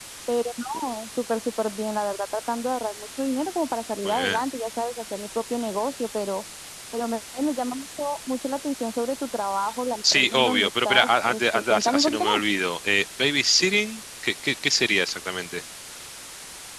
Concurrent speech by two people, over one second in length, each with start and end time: 10.1-12.4

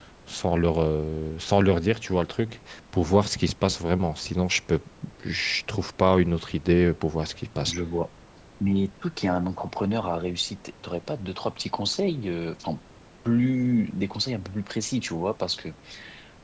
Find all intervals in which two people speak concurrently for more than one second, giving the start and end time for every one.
none

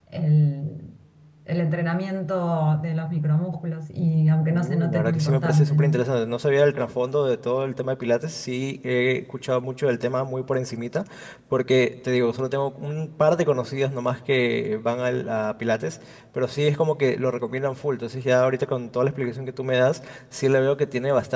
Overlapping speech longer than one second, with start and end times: 4.5-6.0

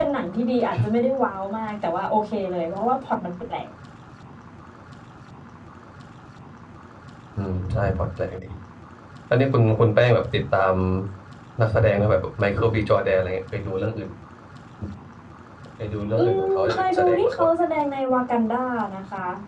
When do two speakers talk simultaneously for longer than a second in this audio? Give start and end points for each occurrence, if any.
16.2-17.5

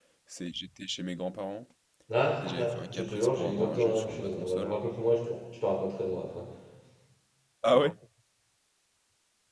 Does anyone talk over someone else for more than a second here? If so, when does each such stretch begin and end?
2.4-4.8

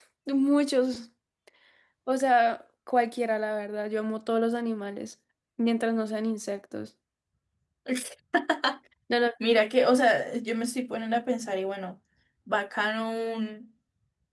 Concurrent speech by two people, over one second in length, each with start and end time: none

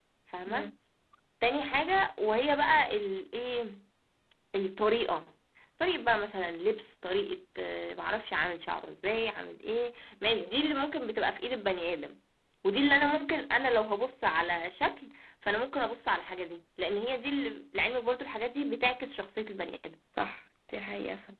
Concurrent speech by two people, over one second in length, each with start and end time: none

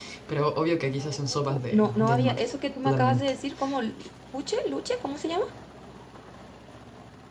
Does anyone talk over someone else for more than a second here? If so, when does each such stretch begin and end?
1.0-2.4

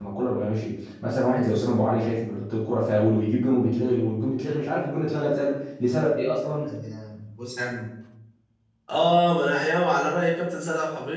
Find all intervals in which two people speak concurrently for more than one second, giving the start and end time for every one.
none

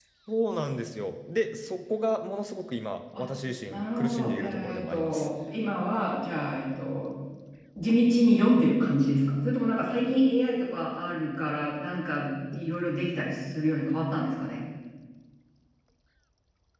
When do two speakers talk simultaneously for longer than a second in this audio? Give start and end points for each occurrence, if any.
3.7-5.3

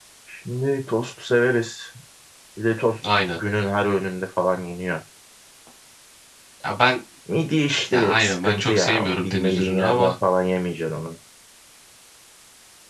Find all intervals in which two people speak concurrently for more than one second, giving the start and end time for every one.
7.9-10.1

